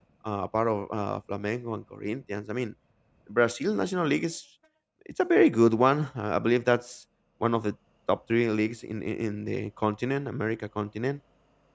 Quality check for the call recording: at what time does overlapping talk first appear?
none

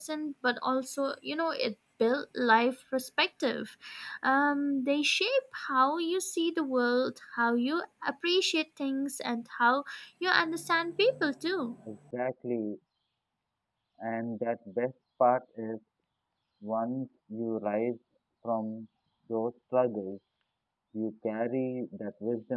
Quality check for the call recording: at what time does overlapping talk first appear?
none

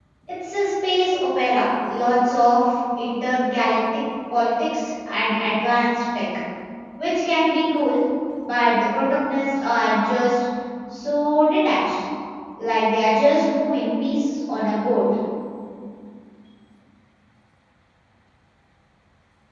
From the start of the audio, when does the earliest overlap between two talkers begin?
none

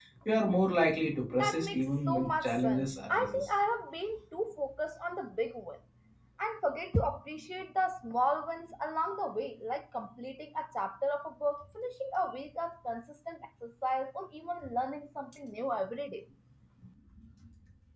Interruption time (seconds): 1 s

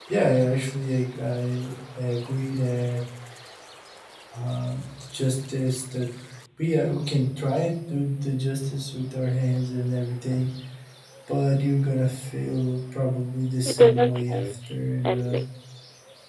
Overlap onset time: 14 s

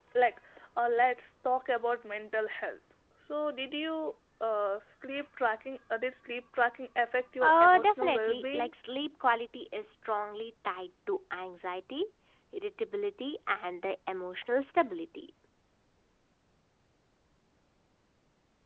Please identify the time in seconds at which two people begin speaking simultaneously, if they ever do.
7 s

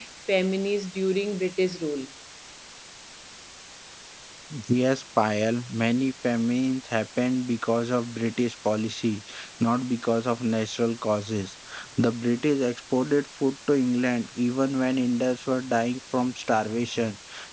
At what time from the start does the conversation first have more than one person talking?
none

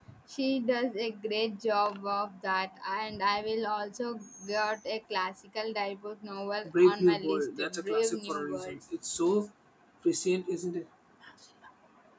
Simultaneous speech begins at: 7 s

